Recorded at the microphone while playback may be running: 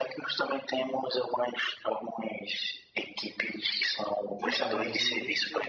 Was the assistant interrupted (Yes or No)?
Yes